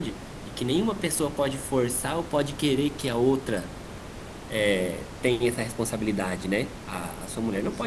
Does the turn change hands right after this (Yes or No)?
No